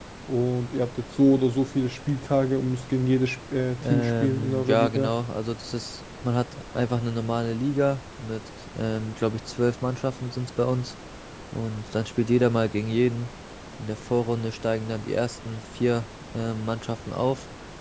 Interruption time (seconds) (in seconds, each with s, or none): 3.8 s